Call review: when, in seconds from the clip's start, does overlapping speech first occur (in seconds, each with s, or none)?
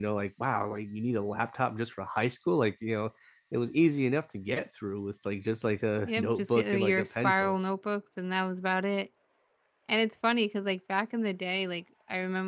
6.0 s